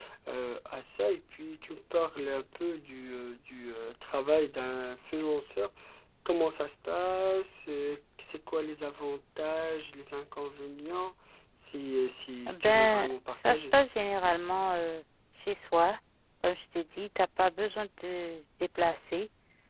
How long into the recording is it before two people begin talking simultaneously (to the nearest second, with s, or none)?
12 s